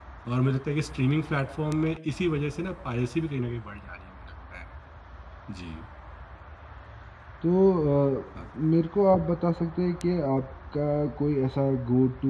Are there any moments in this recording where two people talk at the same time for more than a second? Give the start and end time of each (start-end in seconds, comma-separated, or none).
none